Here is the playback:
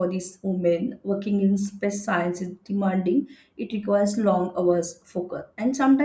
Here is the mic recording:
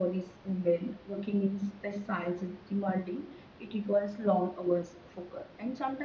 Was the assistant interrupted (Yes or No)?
No